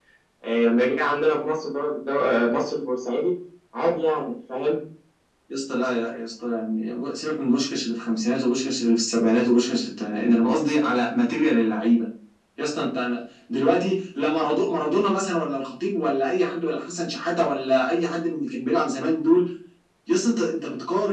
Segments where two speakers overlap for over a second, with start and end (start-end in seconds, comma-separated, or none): none